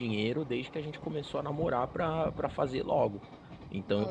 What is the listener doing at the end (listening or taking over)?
listening